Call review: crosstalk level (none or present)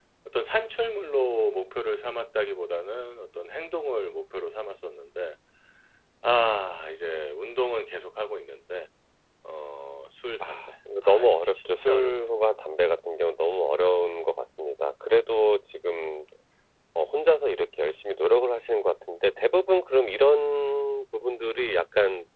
present